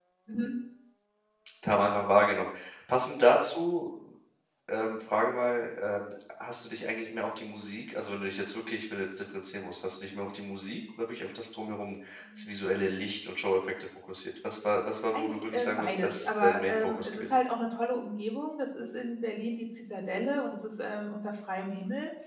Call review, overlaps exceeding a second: present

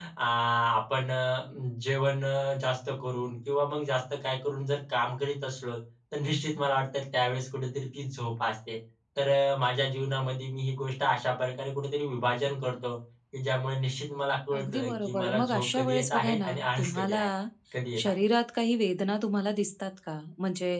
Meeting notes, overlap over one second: present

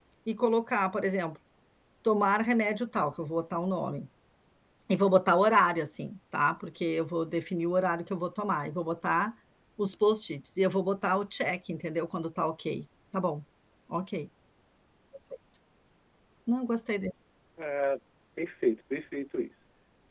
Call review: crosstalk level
none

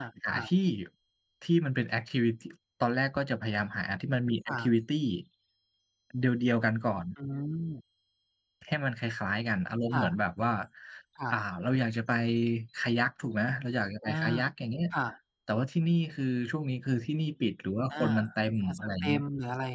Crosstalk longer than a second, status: none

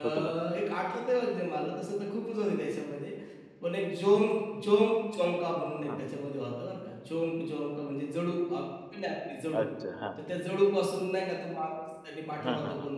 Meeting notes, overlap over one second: none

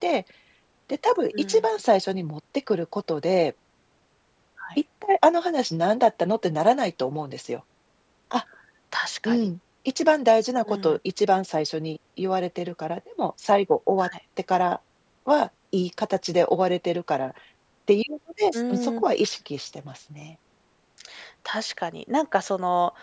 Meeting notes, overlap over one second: none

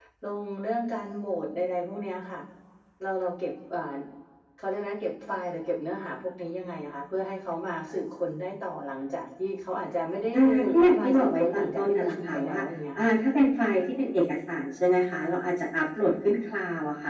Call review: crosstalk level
present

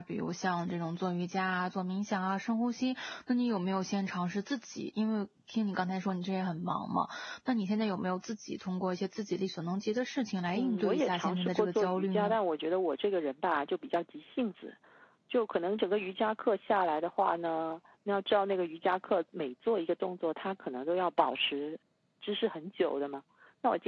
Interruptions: present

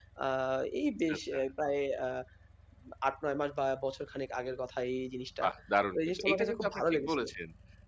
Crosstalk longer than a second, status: present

